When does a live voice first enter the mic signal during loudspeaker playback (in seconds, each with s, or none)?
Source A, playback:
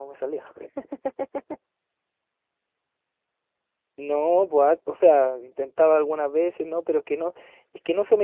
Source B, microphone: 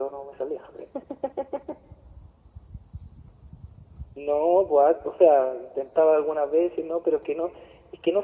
none